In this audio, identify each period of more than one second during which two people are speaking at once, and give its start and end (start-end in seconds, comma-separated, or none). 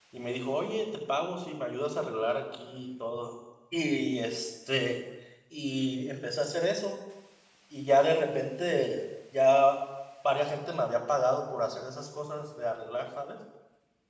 none